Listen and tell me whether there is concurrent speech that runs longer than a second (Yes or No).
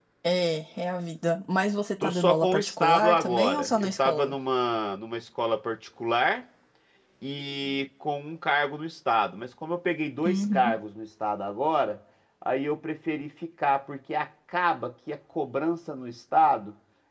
Yes